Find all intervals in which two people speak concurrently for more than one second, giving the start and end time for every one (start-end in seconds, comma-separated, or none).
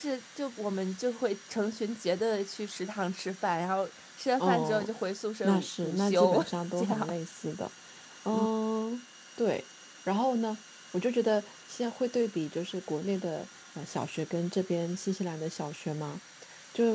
5.4-7.1